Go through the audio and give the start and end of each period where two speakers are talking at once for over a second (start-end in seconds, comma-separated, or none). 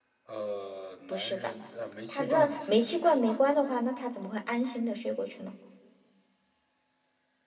2.1-3.4